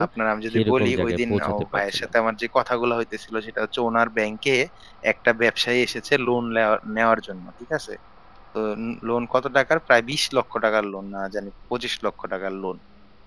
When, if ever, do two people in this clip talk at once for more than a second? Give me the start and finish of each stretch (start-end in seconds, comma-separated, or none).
0.5-2.1